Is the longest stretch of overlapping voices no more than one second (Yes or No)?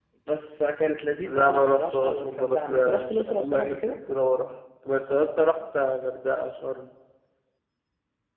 No